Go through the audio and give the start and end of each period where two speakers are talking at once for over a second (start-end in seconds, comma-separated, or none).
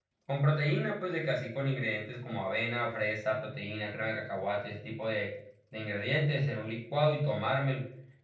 none